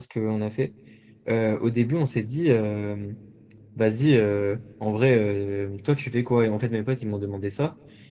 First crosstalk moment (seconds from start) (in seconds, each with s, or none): none